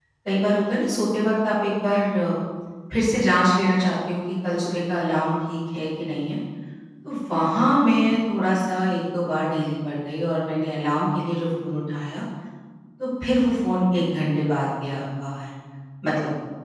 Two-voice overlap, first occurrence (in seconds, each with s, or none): none